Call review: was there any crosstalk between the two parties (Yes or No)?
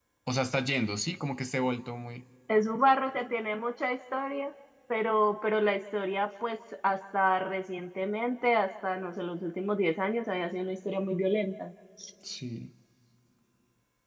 No